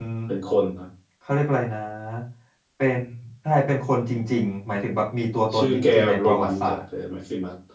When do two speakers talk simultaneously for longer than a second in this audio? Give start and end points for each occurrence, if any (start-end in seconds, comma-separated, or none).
5.6-6.8